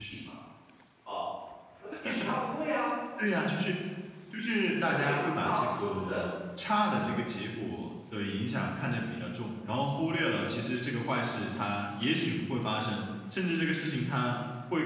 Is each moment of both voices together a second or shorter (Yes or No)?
No